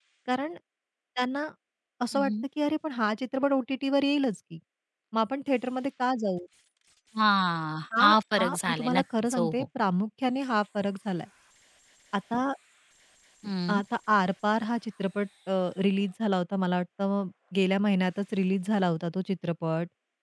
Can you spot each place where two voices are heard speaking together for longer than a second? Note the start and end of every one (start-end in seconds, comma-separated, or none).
8.0-9.6